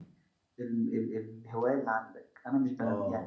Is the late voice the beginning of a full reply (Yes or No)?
No